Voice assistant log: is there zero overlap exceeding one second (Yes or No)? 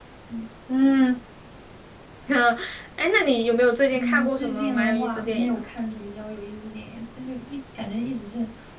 No